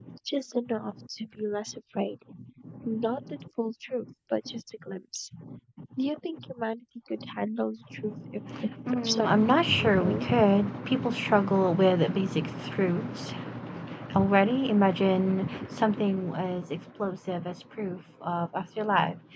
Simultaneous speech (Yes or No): Yes